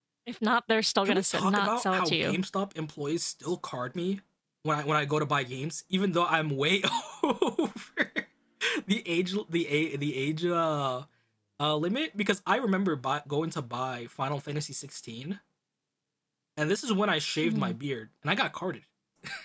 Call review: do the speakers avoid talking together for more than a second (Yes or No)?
No